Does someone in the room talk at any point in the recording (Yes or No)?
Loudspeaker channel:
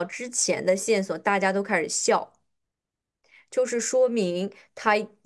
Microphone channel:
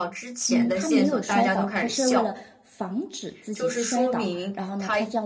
Yes